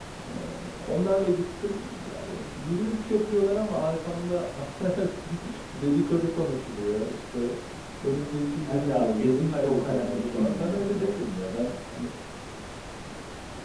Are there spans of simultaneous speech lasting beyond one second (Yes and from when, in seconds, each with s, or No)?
Yes, from 8.7 s